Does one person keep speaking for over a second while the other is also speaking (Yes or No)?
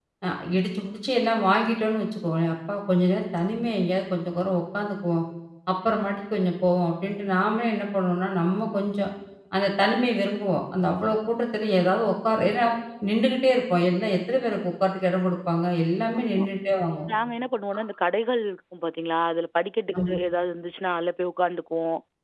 No